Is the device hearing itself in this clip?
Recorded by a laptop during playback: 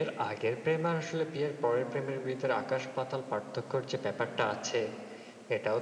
Yes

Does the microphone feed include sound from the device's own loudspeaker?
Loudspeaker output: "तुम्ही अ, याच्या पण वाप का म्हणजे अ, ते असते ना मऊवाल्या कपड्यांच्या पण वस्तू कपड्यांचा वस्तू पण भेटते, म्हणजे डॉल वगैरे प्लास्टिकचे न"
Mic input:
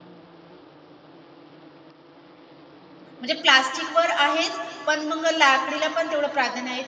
No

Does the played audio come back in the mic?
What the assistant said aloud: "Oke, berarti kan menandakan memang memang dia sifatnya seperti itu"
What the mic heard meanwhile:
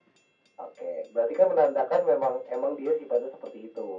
Yes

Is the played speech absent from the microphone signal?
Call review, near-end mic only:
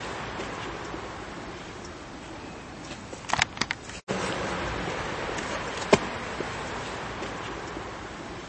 Yes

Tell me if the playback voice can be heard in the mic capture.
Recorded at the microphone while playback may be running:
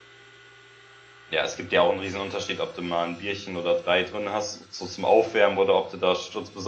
No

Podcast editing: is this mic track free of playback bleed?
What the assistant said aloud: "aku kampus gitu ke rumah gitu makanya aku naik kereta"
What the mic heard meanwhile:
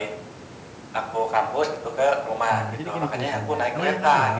No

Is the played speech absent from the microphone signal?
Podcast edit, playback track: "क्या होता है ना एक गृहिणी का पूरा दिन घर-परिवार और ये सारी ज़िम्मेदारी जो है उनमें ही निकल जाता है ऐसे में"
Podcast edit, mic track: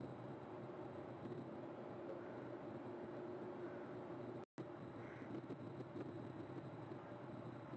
Yes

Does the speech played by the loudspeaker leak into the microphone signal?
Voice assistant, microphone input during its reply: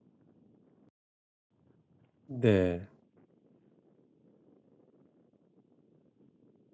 No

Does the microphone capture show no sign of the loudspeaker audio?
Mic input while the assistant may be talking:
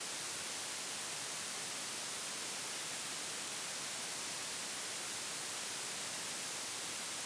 Yes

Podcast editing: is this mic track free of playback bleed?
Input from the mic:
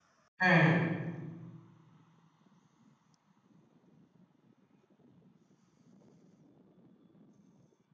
Yes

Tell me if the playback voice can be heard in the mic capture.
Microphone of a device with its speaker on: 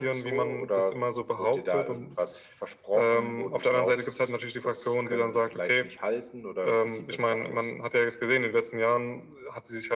Yes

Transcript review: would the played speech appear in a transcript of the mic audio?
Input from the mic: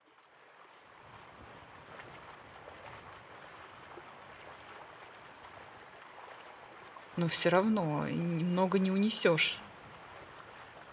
No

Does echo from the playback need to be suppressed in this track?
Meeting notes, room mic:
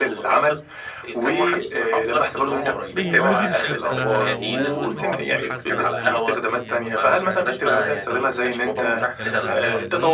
Yes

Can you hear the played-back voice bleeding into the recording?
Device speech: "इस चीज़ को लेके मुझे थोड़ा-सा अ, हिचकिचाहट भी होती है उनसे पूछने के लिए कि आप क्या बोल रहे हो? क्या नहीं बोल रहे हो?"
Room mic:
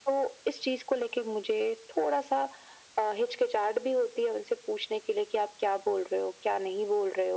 Yes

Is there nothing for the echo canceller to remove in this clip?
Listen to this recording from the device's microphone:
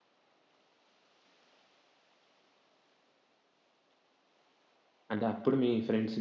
Yes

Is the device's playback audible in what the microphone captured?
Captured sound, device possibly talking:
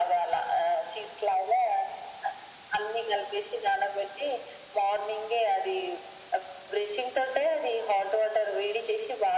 Yes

